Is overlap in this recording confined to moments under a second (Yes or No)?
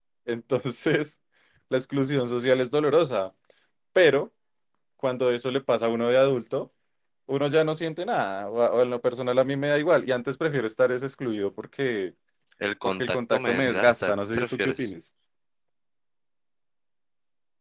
No